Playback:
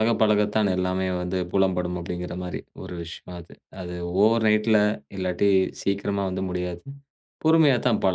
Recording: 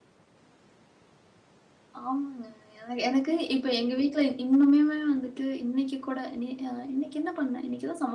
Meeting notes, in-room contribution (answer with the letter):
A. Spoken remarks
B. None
A